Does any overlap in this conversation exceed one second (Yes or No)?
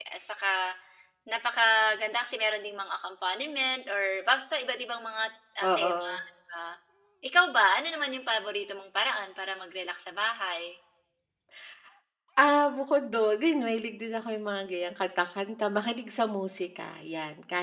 No